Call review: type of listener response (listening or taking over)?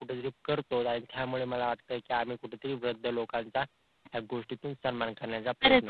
taking over